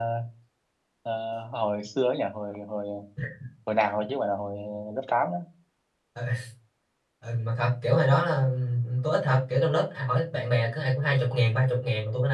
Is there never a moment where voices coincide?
Yes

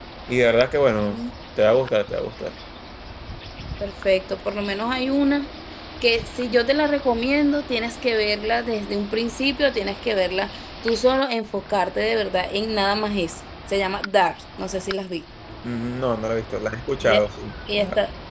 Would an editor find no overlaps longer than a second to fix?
Yes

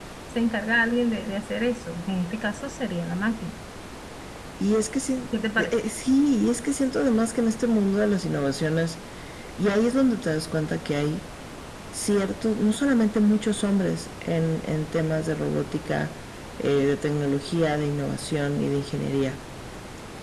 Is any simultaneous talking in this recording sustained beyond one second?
No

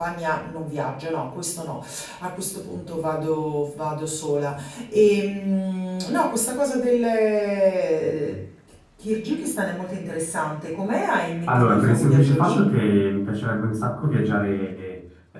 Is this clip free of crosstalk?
No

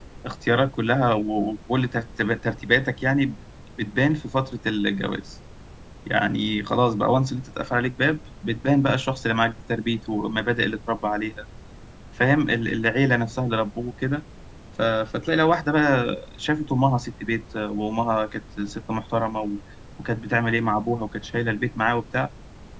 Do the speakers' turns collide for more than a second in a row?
No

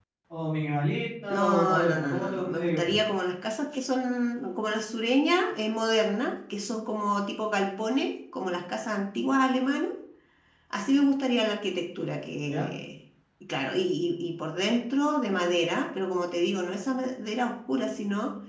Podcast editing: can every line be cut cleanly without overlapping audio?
No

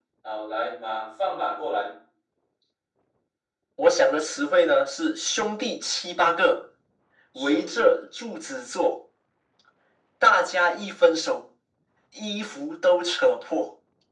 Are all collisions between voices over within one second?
Yes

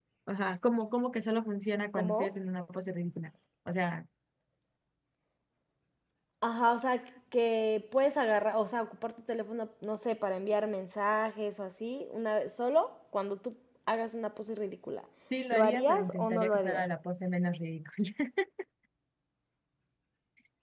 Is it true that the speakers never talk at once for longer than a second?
No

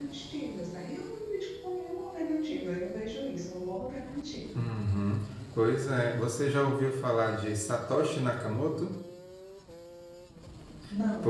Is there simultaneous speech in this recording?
No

